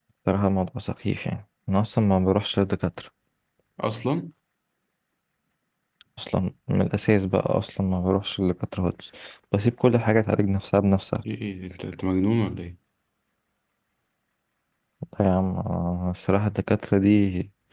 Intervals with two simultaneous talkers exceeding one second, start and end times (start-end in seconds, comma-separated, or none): none